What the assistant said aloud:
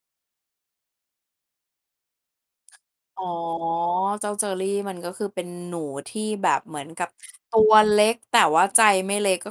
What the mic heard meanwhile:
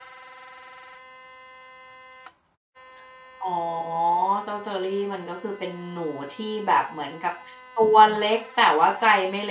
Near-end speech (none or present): none